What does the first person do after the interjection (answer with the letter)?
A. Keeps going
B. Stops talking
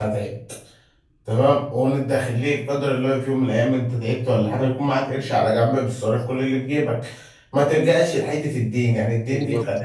A